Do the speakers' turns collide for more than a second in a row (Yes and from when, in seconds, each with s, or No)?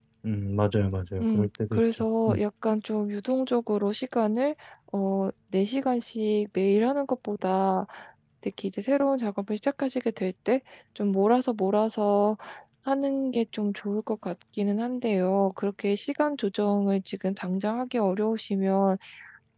Yes, from 1.2 s